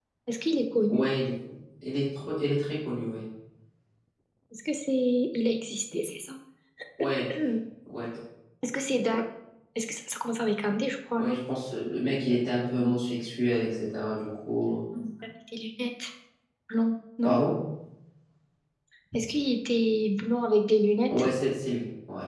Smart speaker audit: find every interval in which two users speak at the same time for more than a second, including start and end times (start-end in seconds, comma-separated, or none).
none